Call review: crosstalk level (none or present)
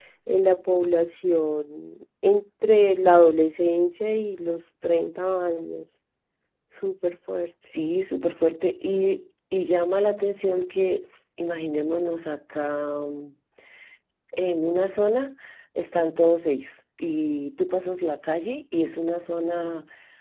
none